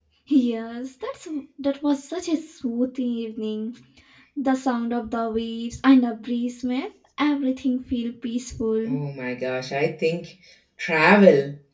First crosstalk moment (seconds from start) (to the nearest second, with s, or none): none